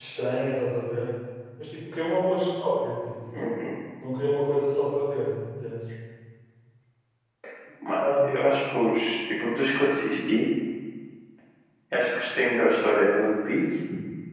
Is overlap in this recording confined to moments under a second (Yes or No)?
Yes